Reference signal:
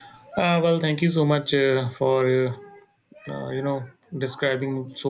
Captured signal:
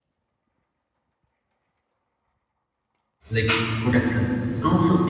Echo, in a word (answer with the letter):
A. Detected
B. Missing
B